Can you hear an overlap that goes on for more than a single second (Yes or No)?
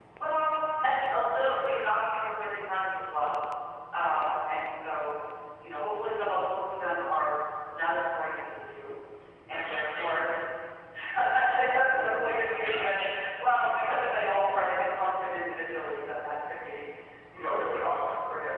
Yes